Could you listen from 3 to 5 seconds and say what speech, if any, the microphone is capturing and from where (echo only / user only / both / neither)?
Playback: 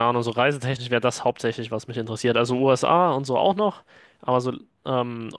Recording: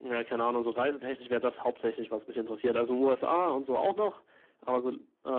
echo only